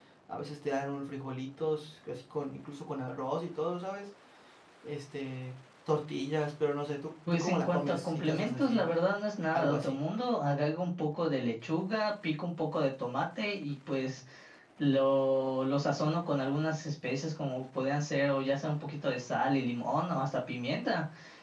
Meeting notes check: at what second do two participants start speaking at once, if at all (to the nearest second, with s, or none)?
7 s